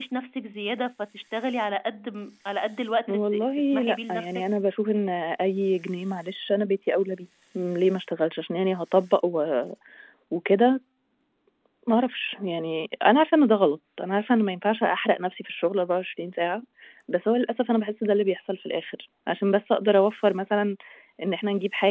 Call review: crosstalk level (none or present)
present